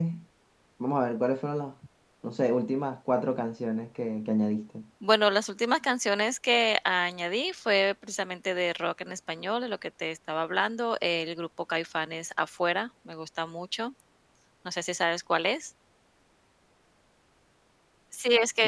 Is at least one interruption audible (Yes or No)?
No